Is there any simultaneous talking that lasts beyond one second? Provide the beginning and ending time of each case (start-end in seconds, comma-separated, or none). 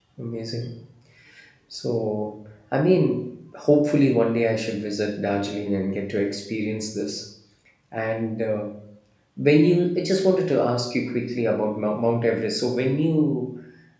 none